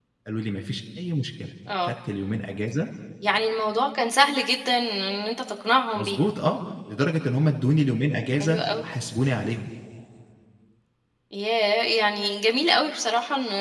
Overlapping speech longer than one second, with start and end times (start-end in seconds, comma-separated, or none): none